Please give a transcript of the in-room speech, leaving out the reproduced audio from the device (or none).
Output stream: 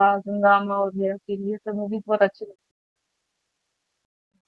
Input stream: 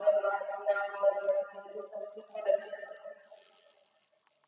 none